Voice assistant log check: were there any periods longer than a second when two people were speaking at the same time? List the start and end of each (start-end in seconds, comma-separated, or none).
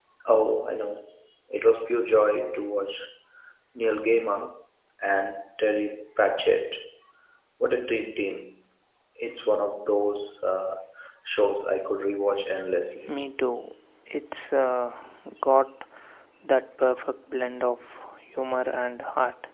none